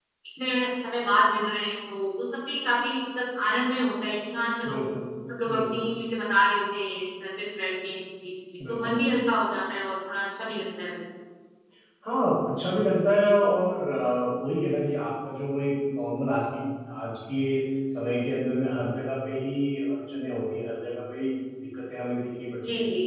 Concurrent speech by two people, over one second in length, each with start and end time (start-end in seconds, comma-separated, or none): none